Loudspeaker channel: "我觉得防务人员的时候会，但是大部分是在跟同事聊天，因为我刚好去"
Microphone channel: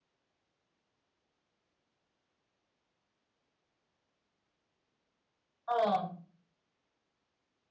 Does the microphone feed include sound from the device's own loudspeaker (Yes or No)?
No